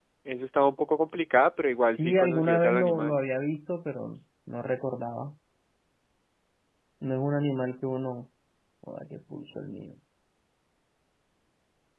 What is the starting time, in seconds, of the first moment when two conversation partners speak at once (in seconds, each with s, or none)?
1.9 s